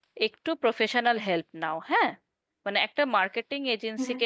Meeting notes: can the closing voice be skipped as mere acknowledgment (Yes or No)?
Yes